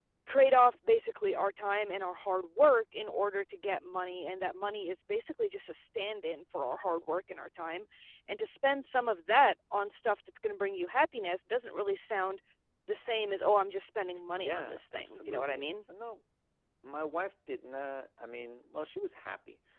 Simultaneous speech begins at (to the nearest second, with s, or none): 14 s